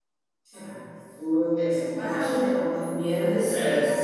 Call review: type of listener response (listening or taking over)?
taking over